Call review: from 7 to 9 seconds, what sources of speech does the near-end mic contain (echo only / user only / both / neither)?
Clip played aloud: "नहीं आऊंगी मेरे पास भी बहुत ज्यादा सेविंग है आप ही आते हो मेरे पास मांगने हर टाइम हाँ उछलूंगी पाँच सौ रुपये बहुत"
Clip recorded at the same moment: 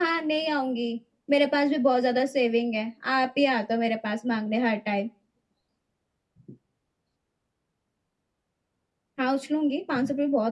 neither